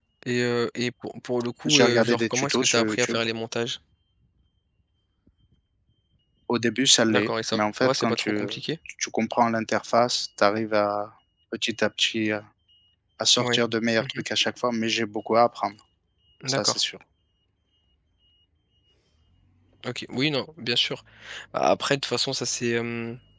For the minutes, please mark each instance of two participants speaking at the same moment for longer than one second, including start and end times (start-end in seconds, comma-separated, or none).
1.6-3.2, 7.1-8.4